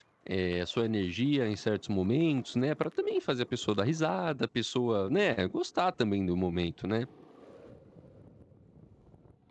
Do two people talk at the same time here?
No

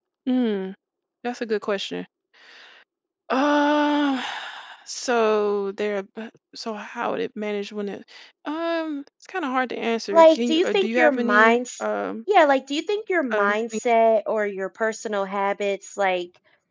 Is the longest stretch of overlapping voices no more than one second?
No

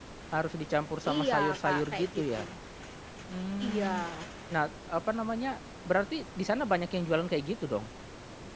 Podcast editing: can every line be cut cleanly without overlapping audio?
No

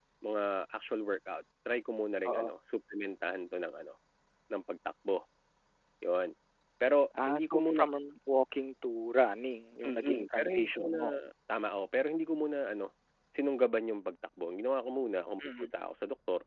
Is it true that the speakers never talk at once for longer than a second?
No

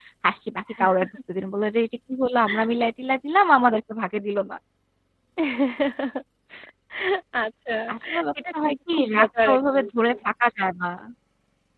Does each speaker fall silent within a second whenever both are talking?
No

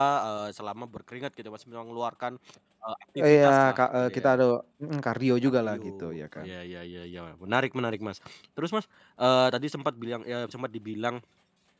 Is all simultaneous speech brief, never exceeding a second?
No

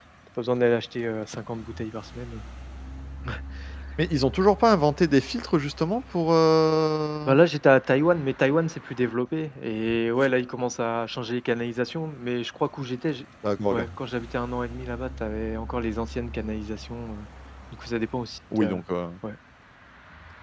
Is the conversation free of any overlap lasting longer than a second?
Yes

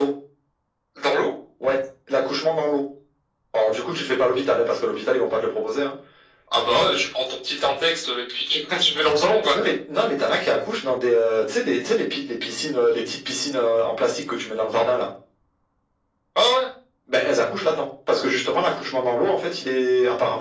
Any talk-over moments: No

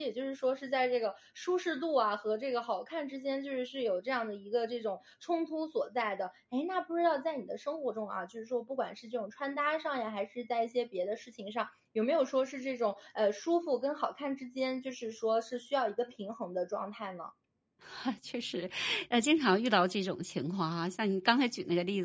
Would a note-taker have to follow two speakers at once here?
No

